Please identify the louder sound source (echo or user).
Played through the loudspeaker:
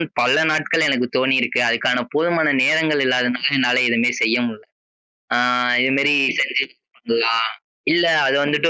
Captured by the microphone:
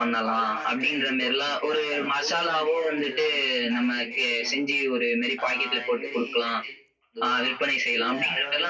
user